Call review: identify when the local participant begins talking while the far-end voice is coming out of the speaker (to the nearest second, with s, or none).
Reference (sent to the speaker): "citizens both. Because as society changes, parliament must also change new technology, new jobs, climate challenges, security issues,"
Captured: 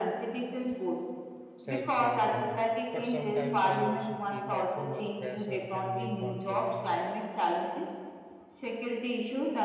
2 s